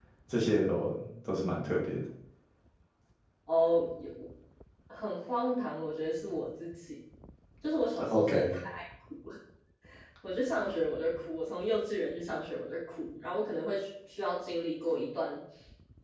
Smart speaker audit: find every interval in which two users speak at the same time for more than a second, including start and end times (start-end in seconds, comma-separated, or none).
none